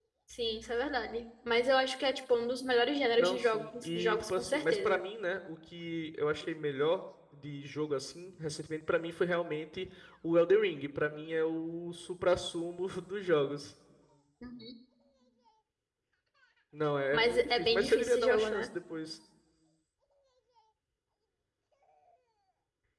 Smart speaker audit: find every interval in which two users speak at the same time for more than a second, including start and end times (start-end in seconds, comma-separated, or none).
3.2-5.0, 17.1-18.7